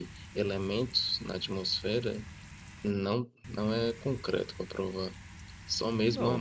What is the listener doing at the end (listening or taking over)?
taking over